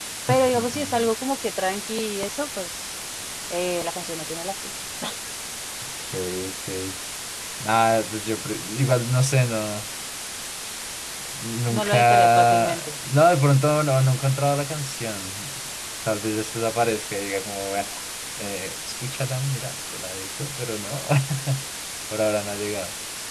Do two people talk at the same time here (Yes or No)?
Yes